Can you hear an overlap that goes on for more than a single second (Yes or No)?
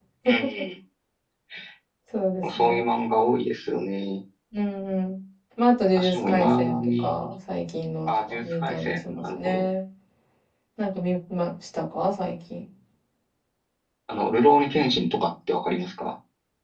Yes